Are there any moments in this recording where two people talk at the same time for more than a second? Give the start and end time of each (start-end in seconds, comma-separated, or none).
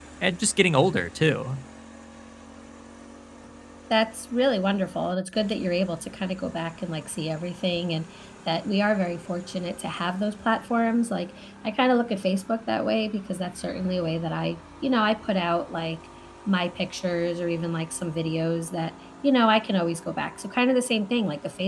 none